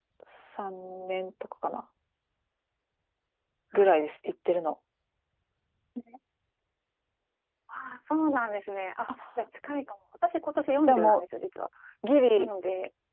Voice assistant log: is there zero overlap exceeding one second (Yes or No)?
Yes